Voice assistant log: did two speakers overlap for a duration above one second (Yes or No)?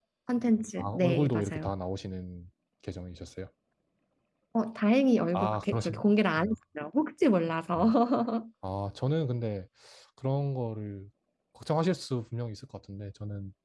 Yes